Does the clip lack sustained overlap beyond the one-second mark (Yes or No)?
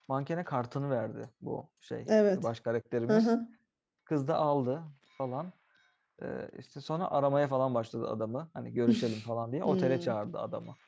Yes